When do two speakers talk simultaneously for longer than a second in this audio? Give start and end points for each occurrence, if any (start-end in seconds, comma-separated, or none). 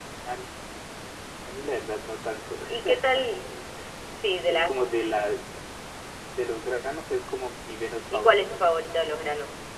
none